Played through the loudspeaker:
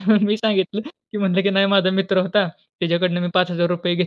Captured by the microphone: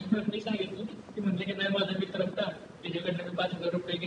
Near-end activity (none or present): none